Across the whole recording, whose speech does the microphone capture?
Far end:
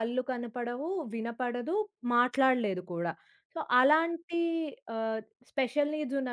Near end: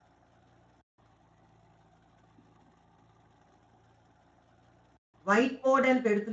user only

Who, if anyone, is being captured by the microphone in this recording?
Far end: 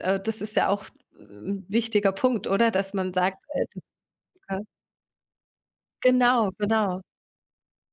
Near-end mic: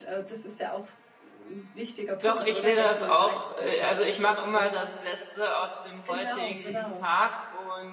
both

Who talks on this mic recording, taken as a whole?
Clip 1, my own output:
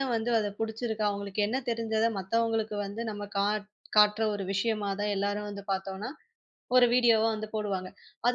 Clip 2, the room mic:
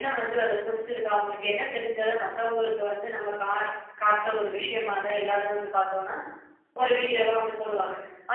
echo only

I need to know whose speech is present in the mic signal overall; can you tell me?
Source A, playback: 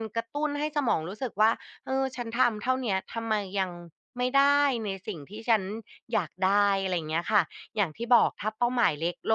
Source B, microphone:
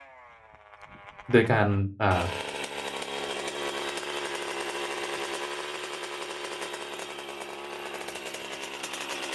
user only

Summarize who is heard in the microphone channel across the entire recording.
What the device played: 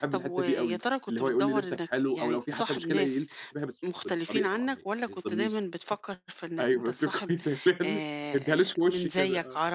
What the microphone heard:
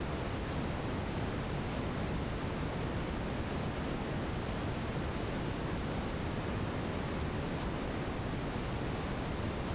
neither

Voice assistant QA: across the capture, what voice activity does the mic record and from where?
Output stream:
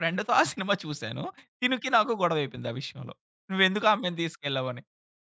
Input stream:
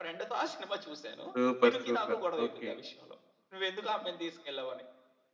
both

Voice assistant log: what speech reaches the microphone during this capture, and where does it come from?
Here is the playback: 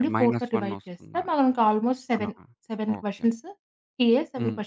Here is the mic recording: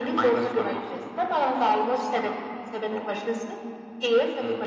echo only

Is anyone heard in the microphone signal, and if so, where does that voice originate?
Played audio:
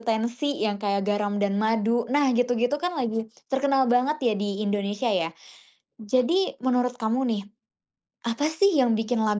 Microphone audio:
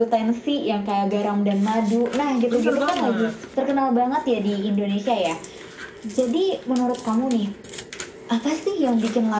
both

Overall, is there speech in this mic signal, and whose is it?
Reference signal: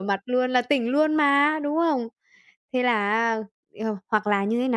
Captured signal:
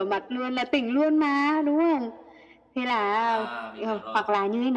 both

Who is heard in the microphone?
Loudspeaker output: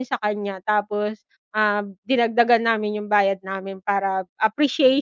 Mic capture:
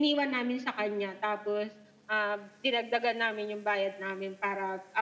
echo only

